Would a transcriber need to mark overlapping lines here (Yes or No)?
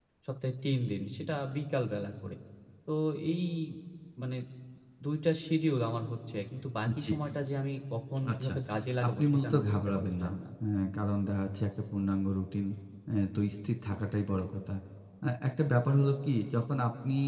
Yes